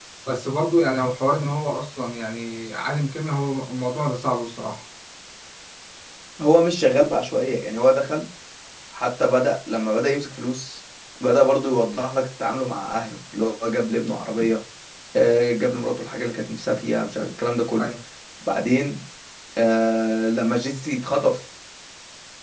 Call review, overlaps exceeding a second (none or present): none